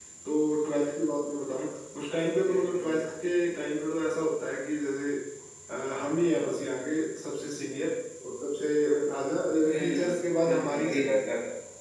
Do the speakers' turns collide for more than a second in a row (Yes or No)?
Yes